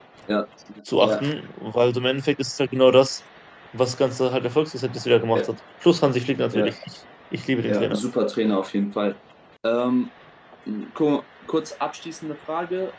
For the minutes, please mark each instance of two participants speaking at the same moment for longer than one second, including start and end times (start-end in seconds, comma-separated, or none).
none